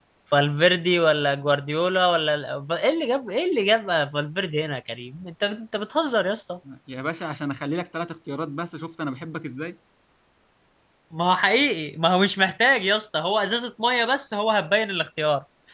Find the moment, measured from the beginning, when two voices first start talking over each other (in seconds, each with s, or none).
none